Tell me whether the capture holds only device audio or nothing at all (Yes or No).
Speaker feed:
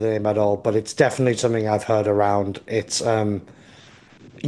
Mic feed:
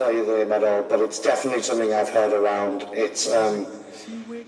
No